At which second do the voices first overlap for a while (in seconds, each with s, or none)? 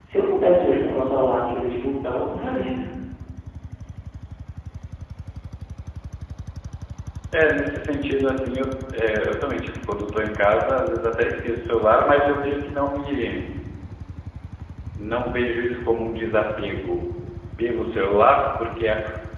none